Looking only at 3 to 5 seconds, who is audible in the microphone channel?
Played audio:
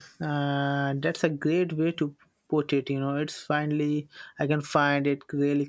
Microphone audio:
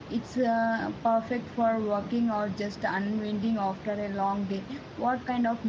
user only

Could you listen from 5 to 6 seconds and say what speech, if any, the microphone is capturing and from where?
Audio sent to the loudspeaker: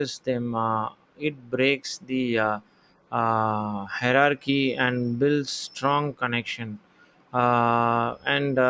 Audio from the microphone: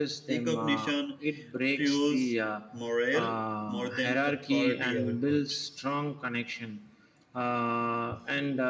both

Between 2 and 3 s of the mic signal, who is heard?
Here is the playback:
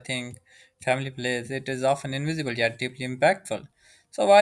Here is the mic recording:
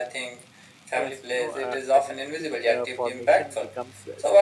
both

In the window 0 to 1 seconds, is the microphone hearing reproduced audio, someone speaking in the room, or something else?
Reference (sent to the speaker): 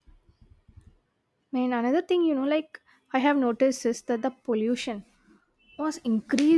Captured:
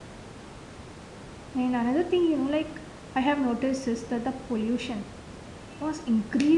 neither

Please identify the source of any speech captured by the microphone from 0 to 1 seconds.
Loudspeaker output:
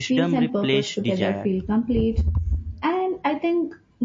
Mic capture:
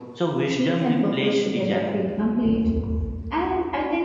echo only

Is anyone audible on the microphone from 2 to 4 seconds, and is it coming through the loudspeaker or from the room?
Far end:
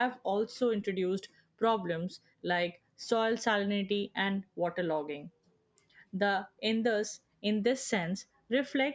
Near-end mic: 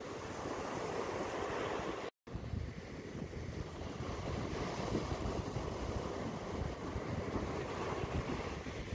neither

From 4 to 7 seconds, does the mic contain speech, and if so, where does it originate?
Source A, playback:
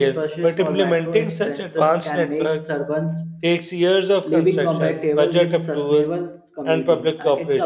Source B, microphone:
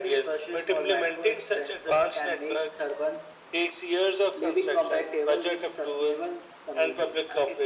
echo only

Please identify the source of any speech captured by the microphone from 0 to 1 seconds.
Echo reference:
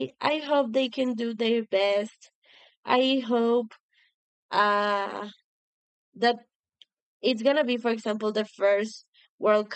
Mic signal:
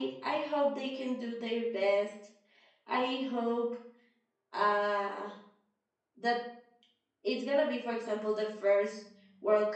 echo only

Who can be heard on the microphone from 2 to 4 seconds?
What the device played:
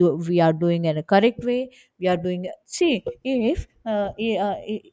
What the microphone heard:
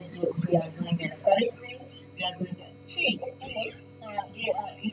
echo only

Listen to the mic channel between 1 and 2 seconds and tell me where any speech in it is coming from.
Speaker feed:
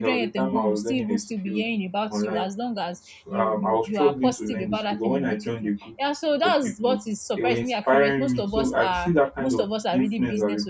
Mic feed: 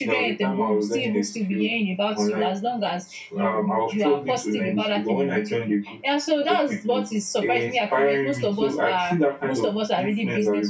echo only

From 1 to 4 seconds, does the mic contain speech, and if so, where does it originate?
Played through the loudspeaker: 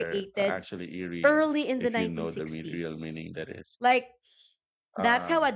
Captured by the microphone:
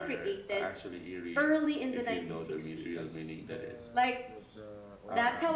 both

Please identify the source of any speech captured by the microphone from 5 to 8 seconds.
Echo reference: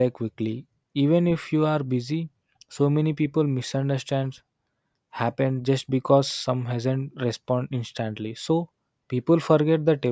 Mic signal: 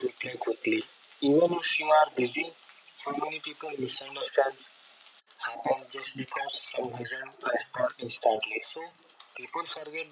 echo only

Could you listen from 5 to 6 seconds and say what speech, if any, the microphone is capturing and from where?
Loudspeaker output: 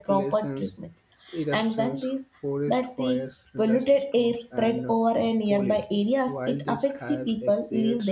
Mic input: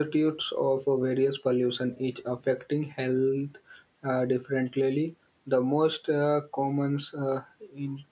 user only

